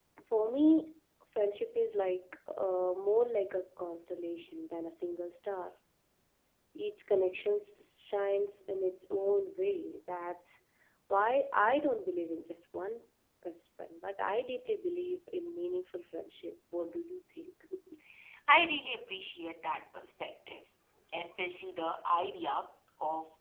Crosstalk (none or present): none